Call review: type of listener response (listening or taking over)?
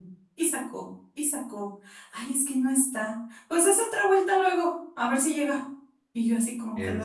listening